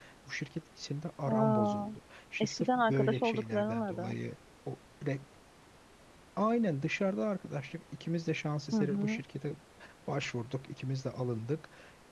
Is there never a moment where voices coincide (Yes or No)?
No